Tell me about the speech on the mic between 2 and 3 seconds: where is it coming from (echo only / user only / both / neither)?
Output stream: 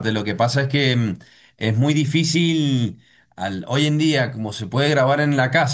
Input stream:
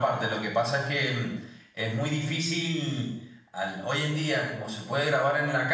echo only